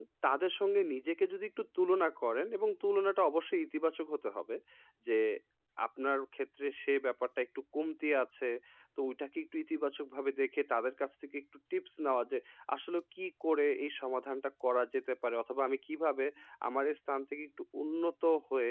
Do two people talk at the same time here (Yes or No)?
No